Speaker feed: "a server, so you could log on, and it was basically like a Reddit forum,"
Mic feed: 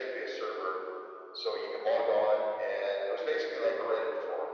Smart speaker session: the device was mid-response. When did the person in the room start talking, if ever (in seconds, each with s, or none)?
none